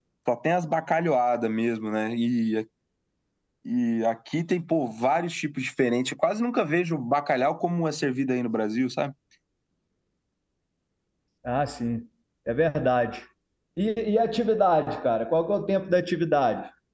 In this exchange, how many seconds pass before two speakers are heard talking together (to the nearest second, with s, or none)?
none